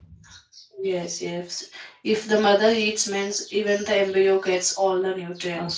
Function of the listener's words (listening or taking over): taking over